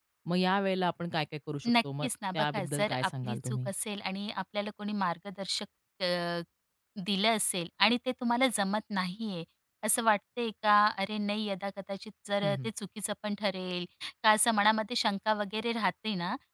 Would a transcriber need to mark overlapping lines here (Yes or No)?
Yes